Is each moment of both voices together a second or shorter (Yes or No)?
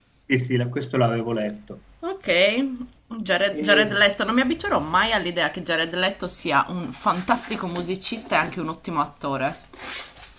Yes